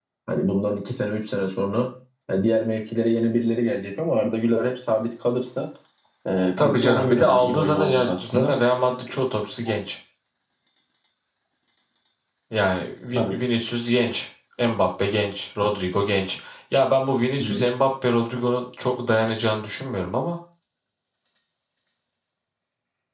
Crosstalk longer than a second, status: present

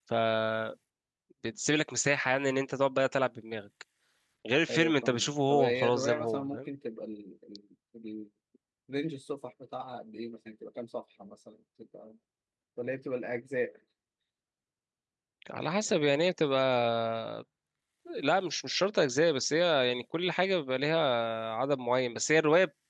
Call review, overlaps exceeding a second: present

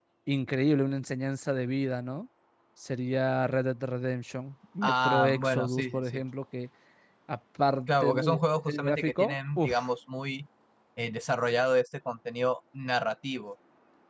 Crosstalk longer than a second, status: present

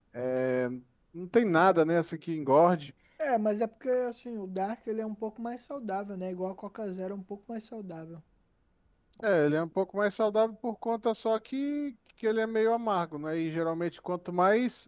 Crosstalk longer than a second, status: none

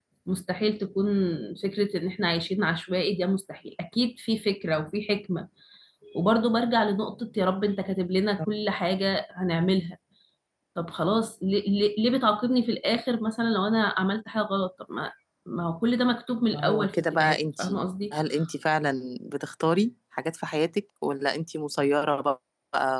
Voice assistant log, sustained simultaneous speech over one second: present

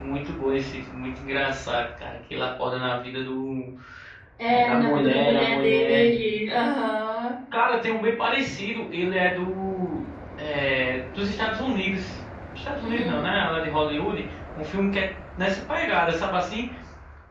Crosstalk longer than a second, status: present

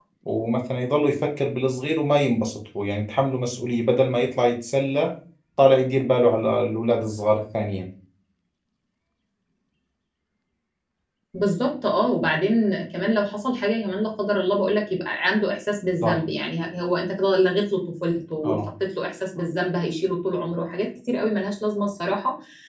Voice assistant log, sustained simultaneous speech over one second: none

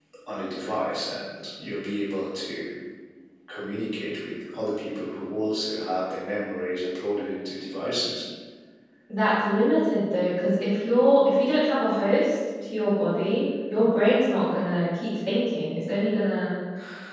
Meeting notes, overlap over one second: none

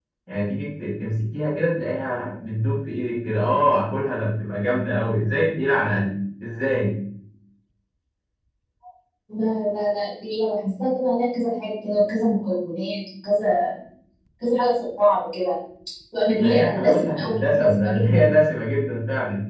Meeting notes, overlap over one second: present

